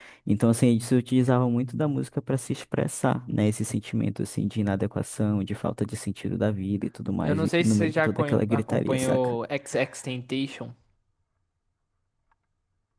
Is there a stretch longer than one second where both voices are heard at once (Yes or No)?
Yes